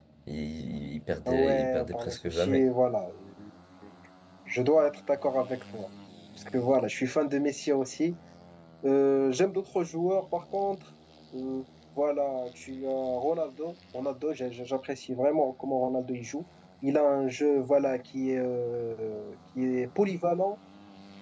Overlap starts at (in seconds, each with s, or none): 1.3 s